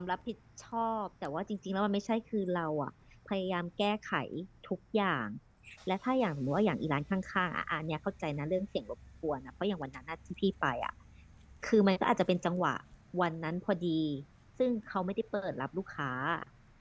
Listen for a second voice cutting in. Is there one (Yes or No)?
No